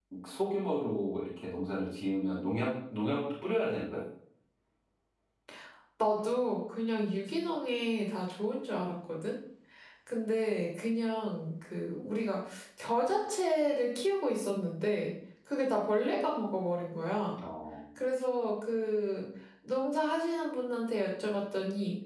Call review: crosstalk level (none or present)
none